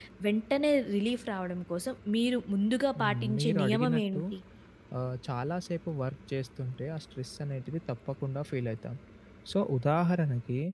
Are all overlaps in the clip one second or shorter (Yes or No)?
No